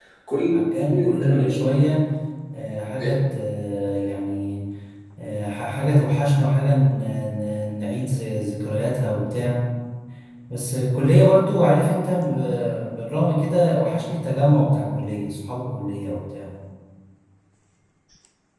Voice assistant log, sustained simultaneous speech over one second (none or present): present